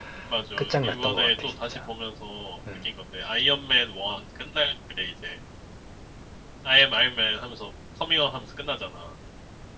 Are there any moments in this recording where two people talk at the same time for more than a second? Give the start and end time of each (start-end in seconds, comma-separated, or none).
0.6-1.8